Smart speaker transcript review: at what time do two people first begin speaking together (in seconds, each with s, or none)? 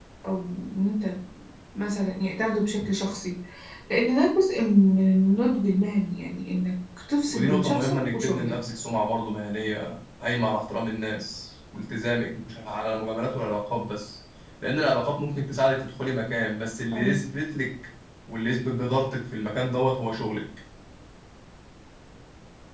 7.3 s